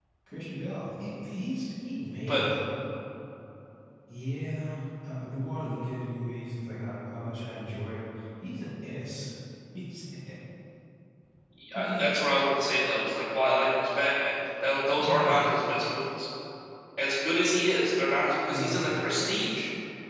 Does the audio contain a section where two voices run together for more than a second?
No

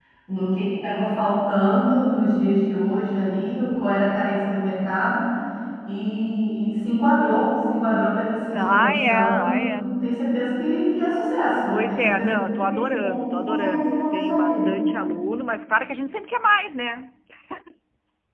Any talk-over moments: Yes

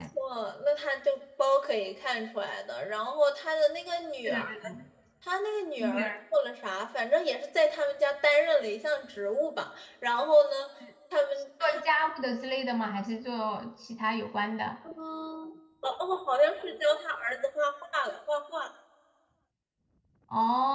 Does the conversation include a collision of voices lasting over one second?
No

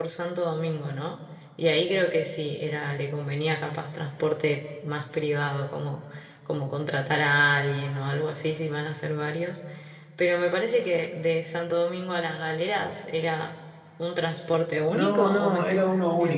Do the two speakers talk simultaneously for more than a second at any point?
Yes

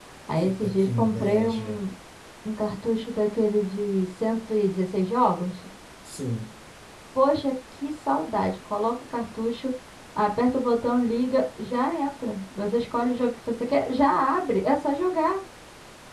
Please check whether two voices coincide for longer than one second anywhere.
Yes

